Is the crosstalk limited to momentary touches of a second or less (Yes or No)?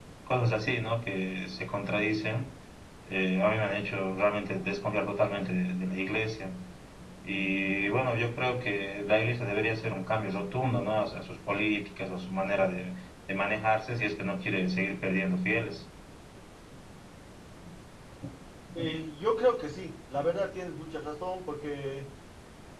Yes